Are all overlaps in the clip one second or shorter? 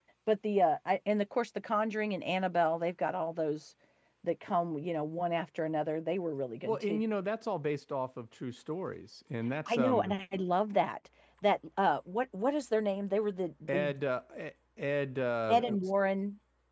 Yes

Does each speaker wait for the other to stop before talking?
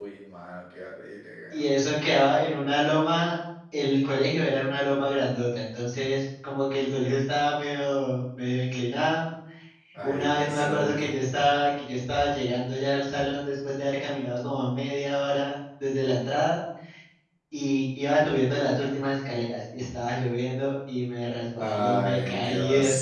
No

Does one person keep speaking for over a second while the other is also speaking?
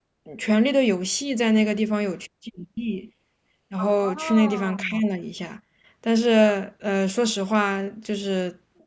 Yes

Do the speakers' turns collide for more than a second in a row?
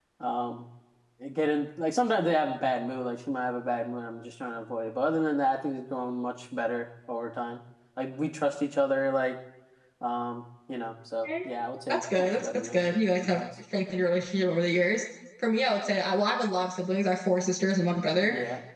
Yes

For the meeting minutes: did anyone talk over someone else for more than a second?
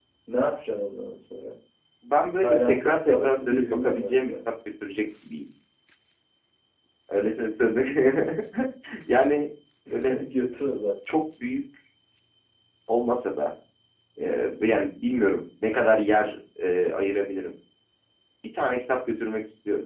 Yes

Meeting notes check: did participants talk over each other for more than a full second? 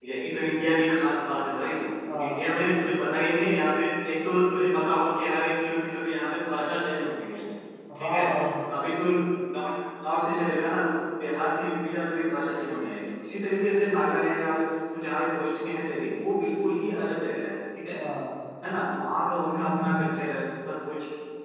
No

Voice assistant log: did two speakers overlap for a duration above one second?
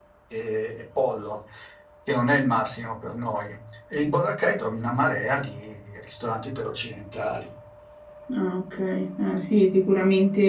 No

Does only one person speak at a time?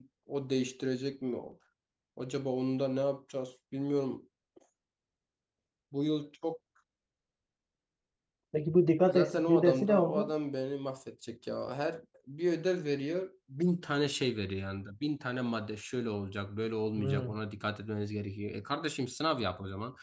No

